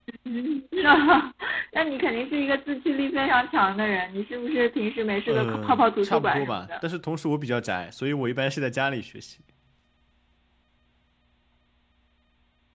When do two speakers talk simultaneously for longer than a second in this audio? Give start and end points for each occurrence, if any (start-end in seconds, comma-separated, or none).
5.3-6.6